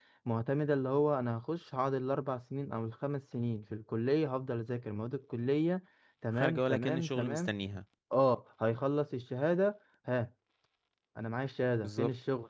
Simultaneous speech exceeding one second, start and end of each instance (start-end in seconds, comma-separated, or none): 6.3-7.5